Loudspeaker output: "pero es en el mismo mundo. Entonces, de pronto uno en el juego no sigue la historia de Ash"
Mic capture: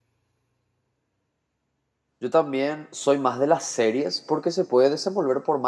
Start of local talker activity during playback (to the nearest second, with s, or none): 2 s